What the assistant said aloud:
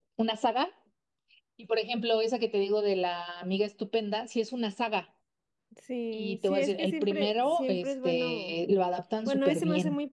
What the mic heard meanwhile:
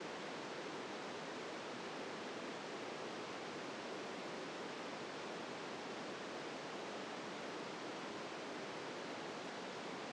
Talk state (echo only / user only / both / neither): neither